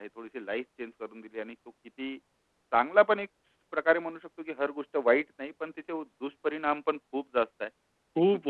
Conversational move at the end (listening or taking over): taking over